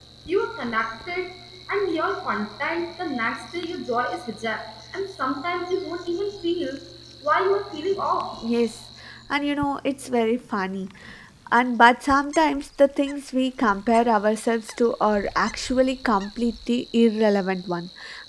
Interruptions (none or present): none